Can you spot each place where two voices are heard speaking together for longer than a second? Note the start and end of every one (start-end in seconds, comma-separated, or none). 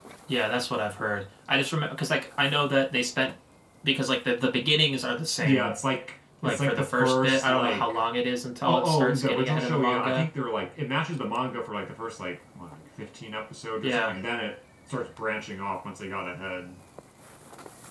6.4-8.0, 8.7-10.3